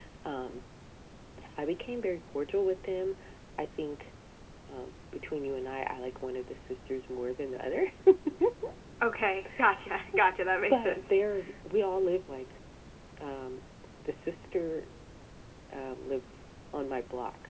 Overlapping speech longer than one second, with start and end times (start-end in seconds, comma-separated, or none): none